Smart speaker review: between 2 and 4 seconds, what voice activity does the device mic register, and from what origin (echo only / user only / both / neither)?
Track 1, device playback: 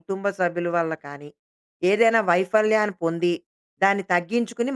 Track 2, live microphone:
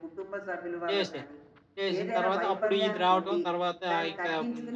both